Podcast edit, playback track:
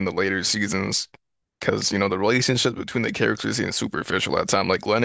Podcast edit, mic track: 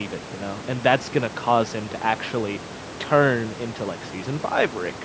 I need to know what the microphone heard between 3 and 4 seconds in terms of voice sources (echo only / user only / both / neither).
user only